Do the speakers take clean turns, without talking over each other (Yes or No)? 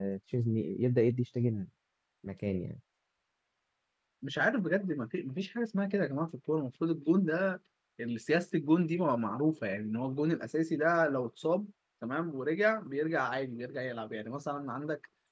Yes